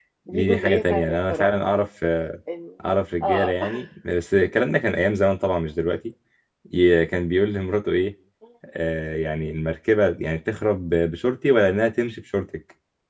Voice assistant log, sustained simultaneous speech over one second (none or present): present